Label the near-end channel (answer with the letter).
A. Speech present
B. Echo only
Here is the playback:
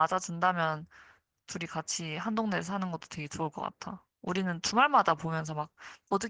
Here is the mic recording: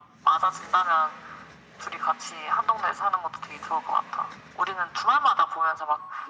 B